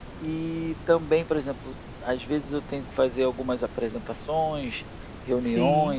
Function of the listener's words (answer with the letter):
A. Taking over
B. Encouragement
B